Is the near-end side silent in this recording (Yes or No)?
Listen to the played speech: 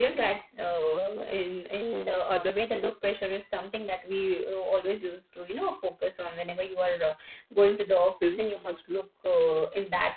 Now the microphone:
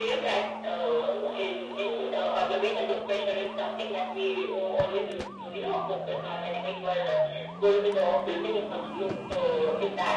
Yes